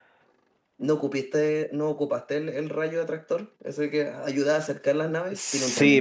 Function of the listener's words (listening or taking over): taking over